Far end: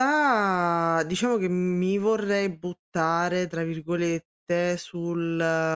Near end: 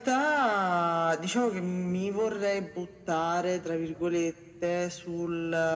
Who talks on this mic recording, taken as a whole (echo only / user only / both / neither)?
echo only